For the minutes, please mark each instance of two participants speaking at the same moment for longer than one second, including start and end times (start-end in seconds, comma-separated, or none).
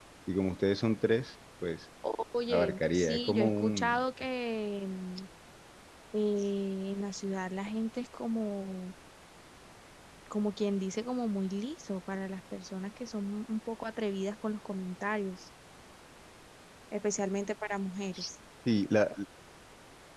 2.5-4.0